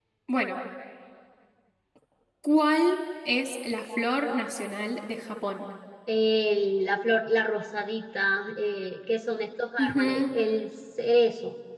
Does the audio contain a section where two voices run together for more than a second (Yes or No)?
No